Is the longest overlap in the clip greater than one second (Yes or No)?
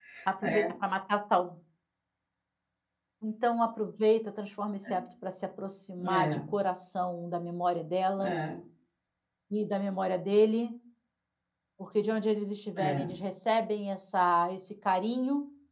No